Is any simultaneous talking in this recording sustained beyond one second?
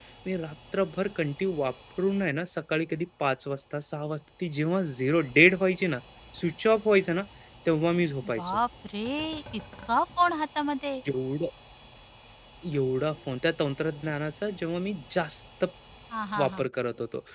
No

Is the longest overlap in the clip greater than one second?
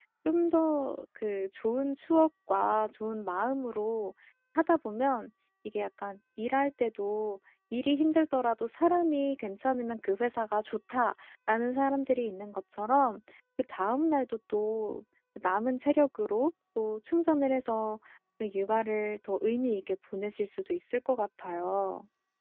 No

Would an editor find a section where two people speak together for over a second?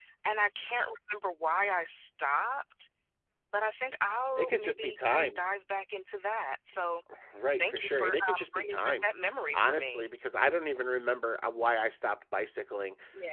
Yes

